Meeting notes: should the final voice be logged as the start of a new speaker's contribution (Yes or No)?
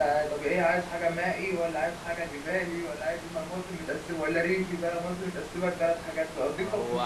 Yes